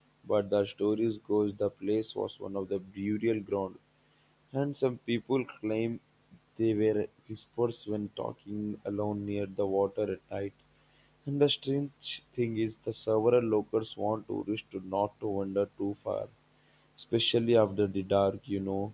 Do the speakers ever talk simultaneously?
No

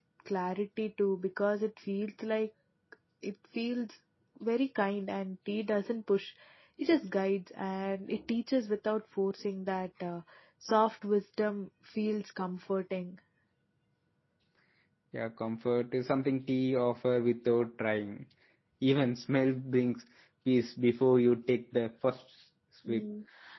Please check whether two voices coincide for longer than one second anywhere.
No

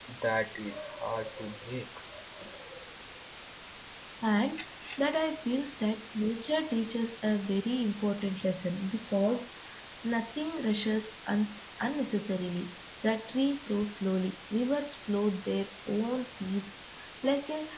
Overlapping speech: No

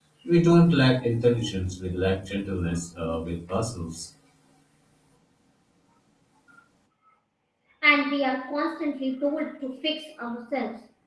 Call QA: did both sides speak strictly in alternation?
Yes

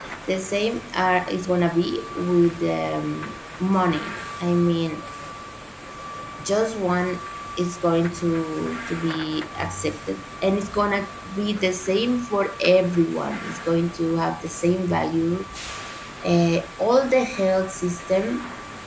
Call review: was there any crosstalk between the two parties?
No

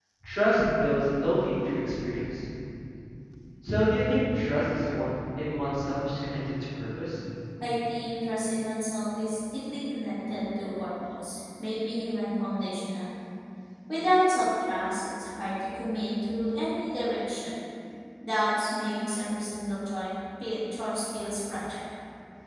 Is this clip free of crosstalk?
Yes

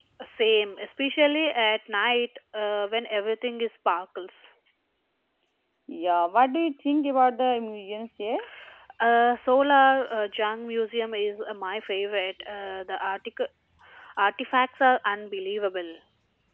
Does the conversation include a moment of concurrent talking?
No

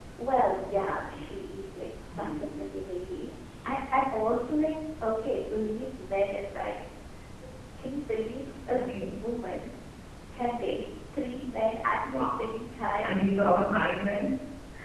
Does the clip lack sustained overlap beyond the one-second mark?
Yes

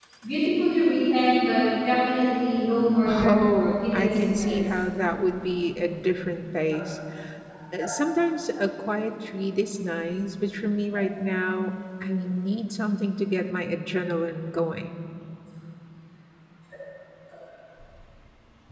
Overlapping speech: Yes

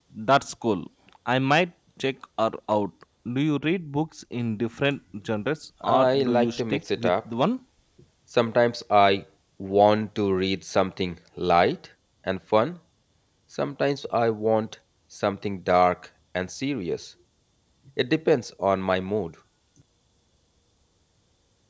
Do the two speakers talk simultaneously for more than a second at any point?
Yes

